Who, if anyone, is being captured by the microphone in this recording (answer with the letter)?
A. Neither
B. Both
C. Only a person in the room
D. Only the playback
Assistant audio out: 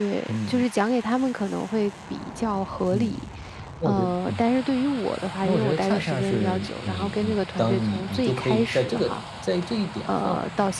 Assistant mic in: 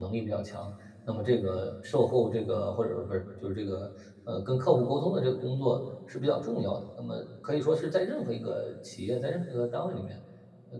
C